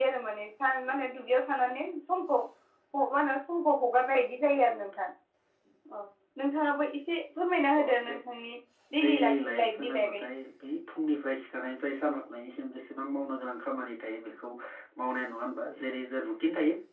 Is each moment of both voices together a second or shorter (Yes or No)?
No